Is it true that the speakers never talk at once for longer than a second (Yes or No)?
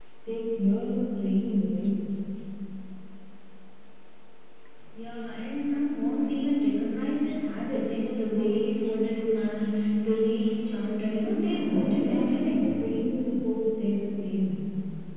No